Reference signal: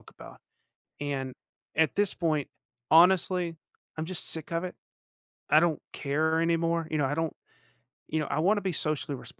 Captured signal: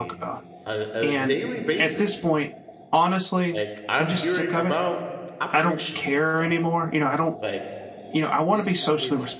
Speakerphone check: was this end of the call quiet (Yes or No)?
No